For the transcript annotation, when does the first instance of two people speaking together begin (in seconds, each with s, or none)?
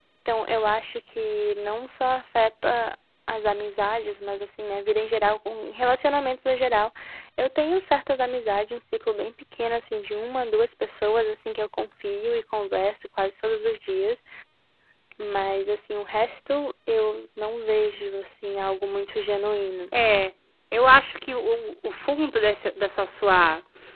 none